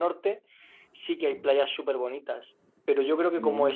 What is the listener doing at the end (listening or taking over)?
listening